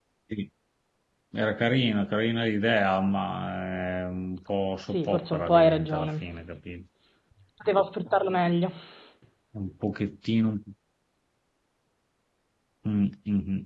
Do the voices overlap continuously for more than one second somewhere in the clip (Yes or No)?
Yes